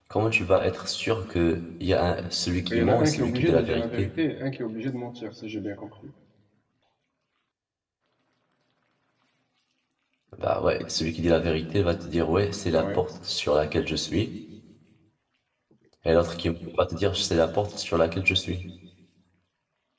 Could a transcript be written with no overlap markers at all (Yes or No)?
No